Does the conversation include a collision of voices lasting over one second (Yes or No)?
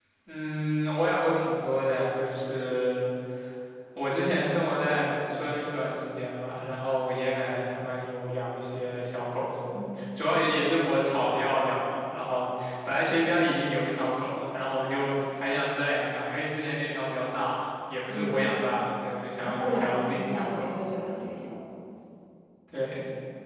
Yes